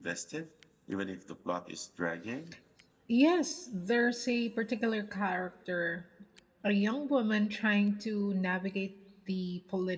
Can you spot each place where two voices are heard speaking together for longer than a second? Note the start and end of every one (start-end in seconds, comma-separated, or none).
none